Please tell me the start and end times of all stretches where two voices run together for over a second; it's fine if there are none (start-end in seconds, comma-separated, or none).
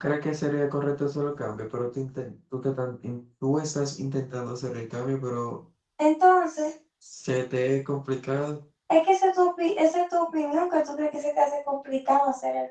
none